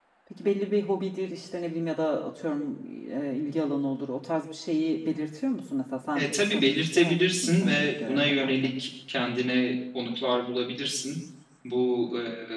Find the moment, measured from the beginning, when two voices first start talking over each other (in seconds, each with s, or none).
6.2 s